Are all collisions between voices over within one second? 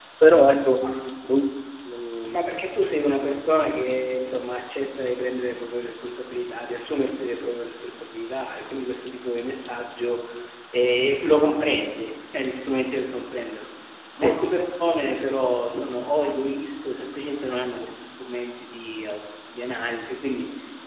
Yes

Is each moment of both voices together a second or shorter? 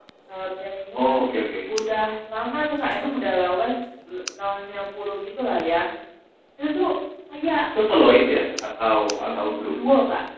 Yes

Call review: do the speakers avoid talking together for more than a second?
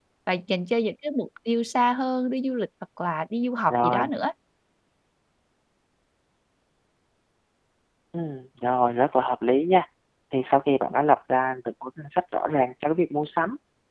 Yes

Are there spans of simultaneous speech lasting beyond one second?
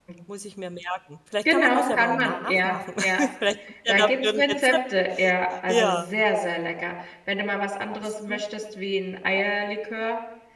Yes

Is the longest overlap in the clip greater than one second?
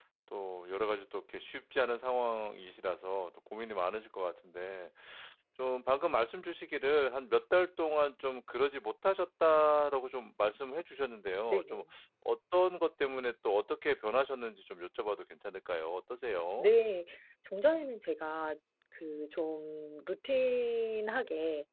No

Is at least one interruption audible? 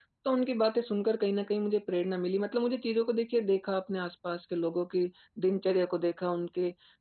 No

